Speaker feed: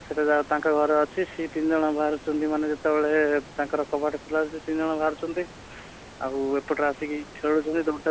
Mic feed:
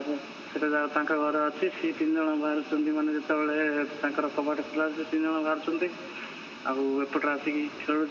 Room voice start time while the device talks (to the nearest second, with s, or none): none